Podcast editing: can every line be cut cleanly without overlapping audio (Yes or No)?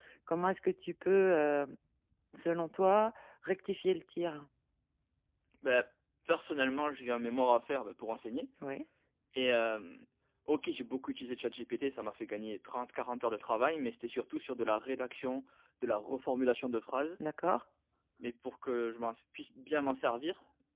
Yes